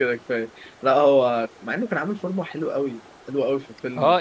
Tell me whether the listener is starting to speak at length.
Yes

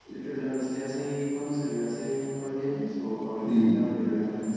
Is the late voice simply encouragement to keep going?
No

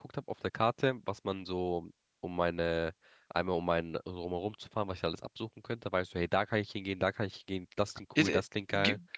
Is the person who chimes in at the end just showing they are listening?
No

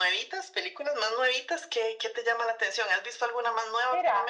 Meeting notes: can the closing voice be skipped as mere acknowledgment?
No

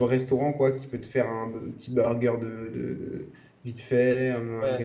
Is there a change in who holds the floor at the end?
Yes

